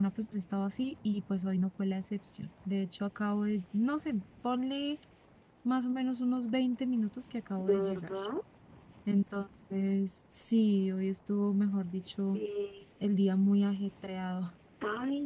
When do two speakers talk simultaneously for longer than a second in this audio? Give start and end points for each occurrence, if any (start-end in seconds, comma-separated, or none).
none